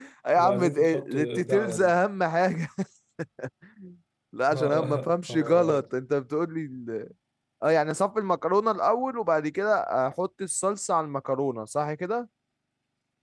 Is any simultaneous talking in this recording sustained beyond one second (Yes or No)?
Yes